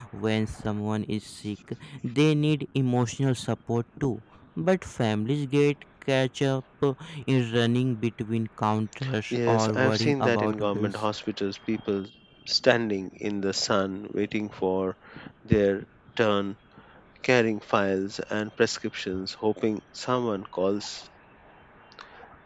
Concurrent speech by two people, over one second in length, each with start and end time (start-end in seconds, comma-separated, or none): 9.3-11.0